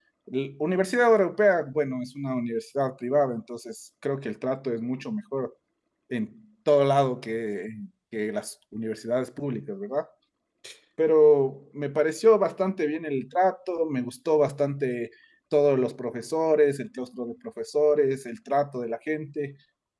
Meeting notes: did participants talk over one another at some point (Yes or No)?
No